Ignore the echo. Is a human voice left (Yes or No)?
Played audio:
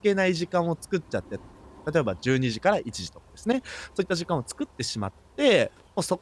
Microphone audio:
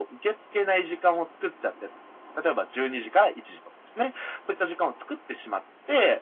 No